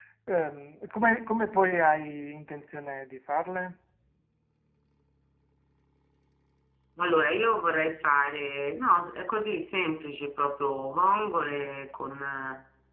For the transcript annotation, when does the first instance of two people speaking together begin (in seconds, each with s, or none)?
none